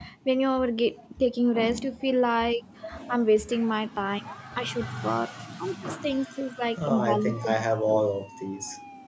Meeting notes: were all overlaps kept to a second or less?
No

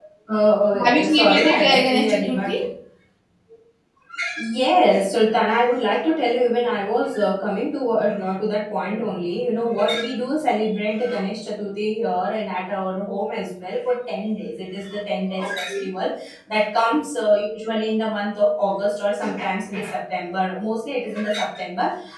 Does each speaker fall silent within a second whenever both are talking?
No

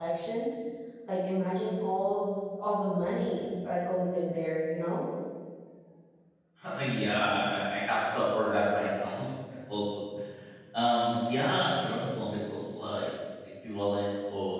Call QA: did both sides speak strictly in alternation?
Yes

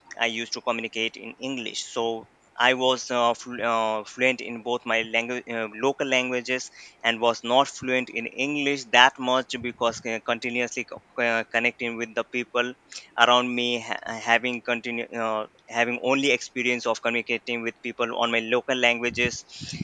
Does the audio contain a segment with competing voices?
No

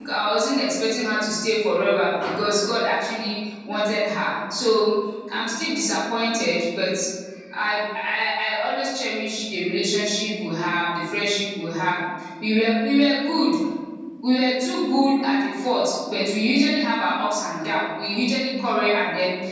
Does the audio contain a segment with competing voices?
No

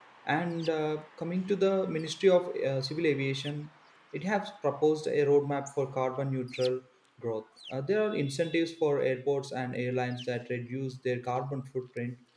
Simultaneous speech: No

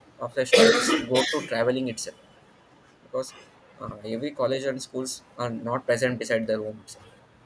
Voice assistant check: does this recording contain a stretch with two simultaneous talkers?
No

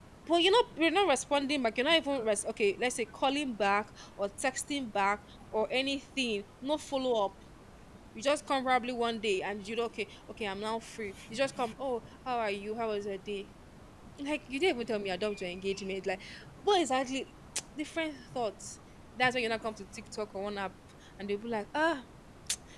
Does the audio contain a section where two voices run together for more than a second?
No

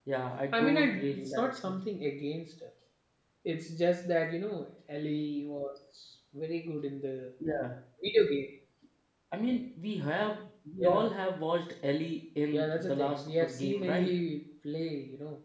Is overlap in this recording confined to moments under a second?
No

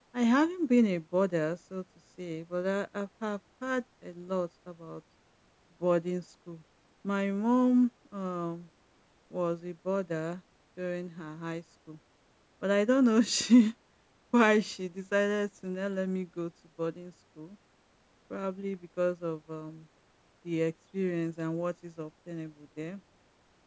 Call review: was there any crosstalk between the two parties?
No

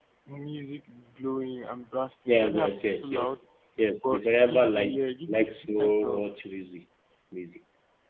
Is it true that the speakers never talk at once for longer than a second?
No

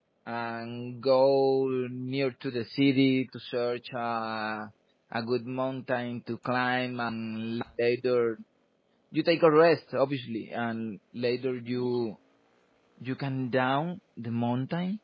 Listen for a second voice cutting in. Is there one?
No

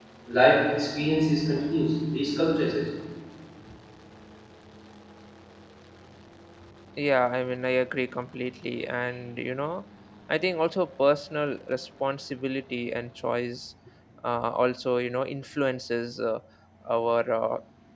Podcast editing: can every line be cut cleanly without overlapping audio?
Yes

